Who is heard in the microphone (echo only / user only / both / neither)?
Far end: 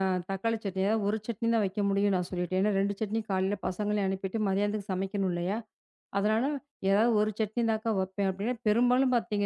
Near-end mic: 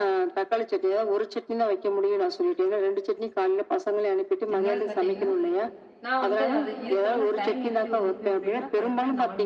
both